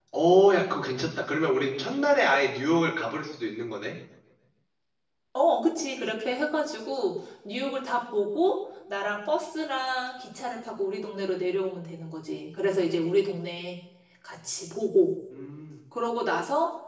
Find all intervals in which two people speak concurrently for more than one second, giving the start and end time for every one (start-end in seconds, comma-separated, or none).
none